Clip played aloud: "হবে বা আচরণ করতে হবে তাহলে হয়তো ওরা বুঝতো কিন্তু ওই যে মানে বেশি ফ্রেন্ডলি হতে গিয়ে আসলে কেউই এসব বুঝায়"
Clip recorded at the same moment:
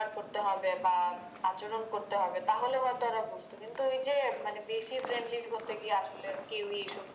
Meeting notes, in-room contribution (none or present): none